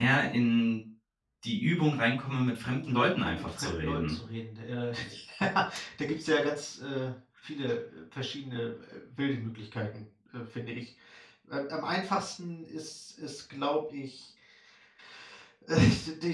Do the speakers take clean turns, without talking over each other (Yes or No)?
No